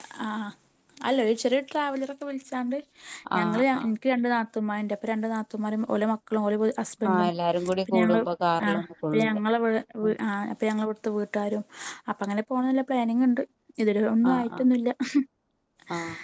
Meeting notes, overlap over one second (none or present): none